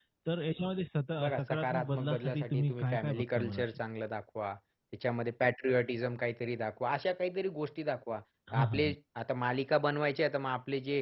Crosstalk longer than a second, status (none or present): present